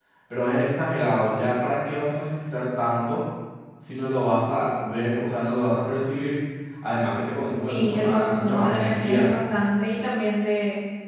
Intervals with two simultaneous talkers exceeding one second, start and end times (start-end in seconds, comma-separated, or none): 7.7-9.3